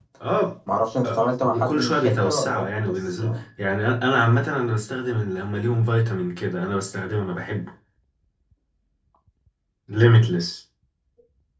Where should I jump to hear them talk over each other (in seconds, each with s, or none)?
1.0 s